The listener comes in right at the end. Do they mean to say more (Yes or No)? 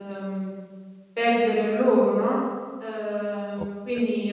Yes